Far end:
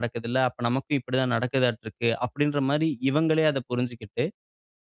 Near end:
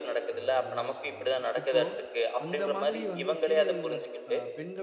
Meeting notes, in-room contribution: present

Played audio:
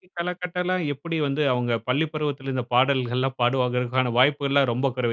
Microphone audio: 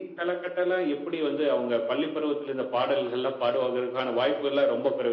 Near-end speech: none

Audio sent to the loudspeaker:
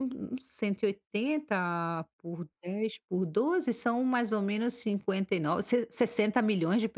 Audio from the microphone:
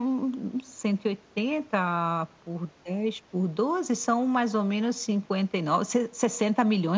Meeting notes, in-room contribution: none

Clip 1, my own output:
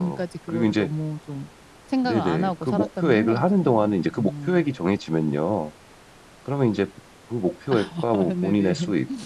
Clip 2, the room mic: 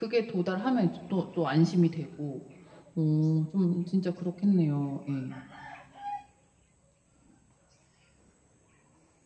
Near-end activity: present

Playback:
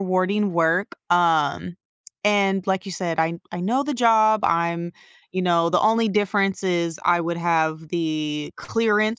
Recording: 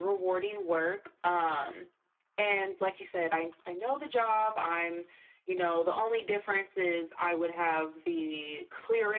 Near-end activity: none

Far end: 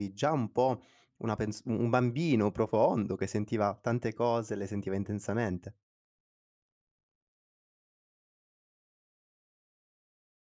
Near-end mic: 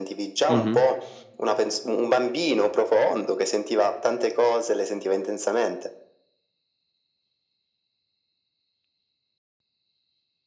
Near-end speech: present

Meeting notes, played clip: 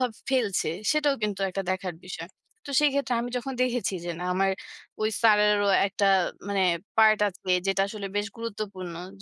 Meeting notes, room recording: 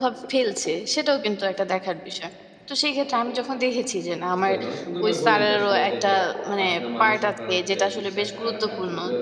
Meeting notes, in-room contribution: present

